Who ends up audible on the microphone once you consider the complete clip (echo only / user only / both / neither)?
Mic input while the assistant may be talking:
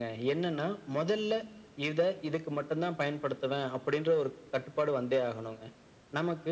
echo only